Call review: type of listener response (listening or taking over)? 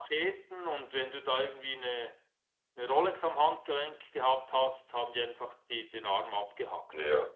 taking over